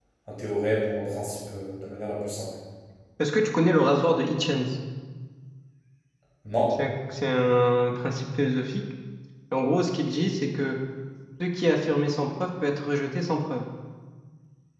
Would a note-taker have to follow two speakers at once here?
No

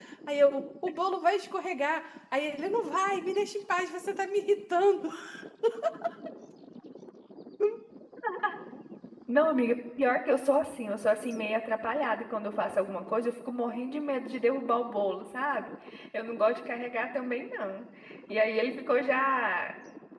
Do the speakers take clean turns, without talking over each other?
Yes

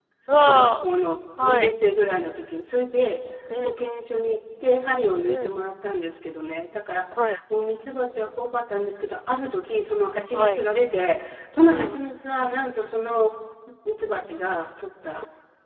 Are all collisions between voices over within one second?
Yes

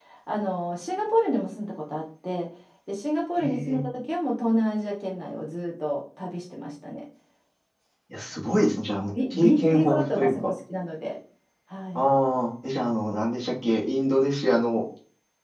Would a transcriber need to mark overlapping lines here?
Yes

